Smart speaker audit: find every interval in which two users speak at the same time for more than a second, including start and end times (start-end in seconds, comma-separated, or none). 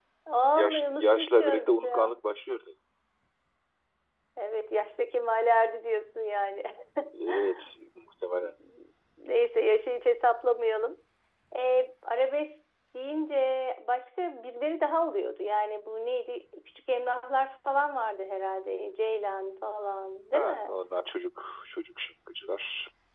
0.6-2.1